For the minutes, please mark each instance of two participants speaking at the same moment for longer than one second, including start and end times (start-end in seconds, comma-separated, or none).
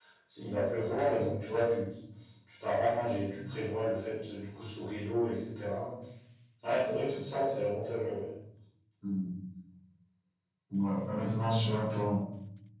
none